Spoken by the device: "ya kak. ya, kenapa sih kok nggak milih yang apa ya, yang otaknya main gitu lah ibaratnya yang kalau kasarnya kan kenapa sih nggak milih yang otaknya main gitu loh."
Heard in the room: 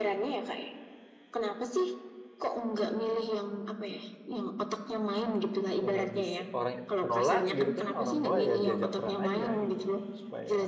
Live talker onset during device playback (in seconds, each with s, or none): 5.8 s